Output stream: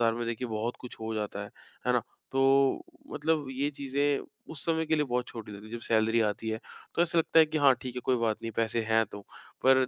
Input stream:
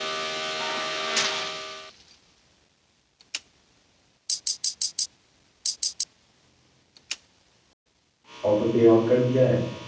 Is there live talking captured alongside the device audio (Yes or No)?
Yes